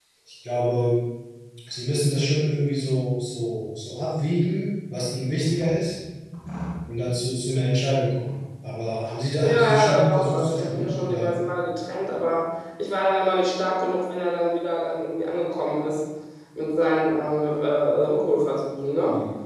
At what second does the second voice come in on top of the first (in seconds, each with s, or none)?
9.4 s